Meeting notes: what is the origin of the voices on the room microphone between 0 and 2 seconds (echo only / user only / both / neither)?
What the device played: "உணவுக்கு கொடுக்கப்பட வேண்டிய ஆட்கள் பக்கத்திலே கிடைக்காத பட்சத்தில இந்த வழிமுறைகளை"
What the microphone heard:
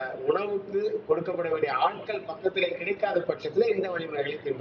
echo only